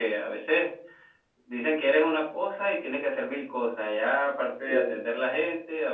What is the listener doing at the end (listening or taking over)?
listening